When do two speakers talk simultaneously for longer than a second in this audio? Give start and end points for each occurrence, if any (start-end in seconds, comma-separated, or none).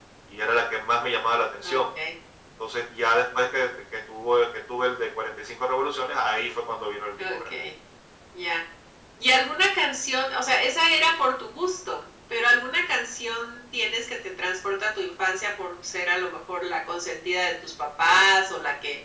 none